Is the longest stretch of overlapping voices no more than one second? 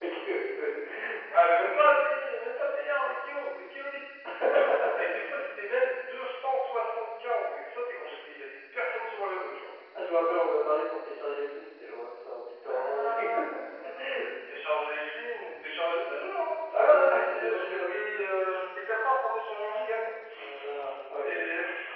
No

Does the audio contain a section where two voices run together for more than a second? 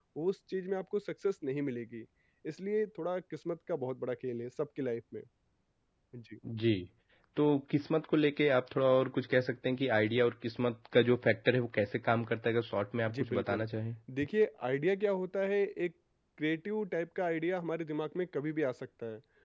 No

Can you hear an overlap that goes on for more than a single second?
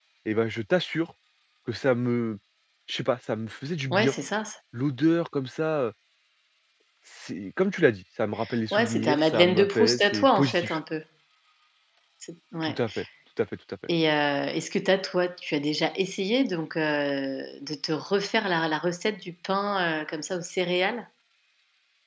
Yes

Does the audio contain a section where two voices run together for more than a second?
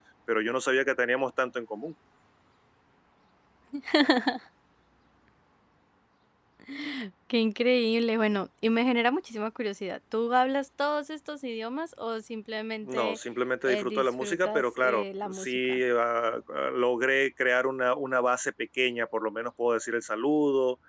Yes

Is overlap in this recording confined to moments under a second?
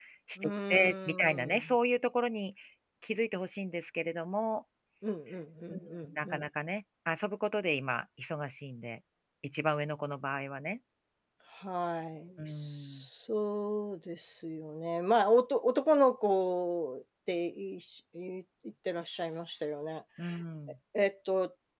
No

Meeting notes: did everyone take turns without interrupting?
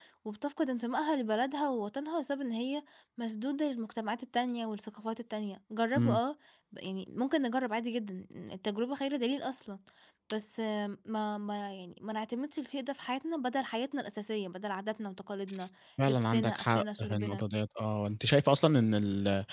No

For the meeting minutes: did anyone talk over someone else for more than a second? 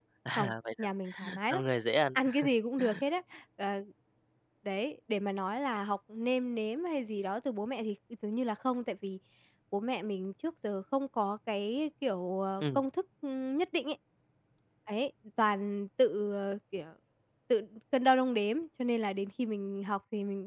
No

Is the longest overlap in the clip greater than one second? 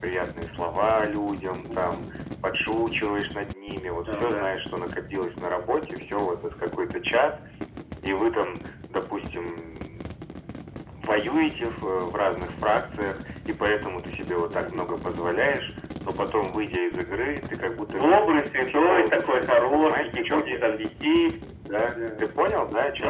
Yes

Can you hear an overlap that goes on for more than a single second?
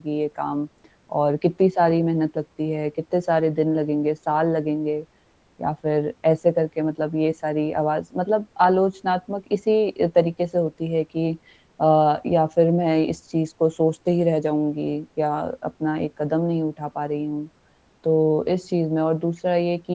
No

